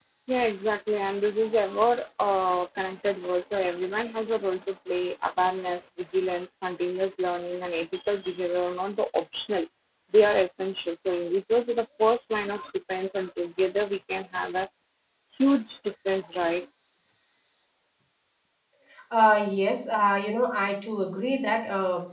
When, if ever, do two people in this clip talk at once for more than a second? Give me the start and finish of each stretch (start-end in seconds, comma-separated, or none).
none